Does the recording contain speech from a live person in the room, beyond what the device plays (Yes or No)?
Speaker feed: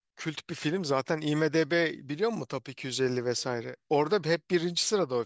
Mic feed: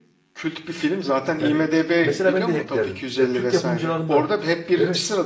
Yes